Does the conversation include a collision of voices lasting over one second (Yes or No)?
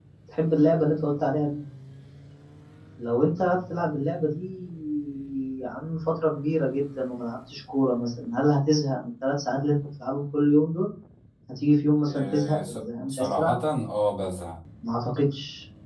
Yes